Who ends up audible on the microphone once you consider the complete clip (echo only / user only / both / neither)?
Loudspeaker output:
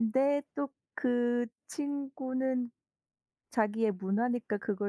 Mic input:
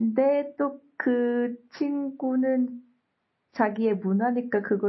echo only